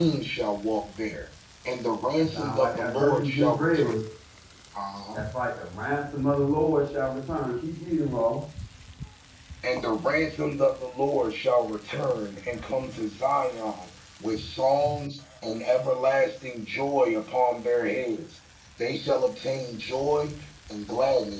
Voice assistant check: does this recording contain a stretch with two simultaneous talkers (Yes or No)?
Yes